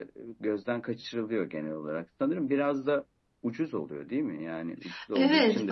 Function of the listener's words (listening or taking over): taking over